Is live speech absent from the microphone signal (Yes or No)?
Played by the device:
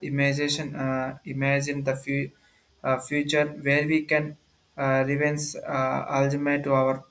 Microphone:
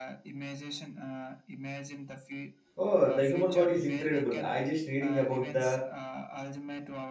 No